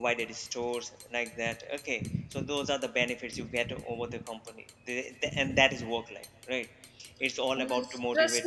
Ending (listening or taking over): taking over